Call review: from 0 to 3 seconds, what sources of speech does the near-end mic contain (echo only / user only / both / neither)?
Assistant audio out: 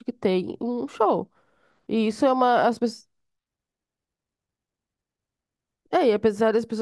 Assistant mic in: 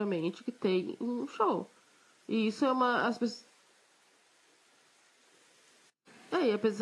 echo only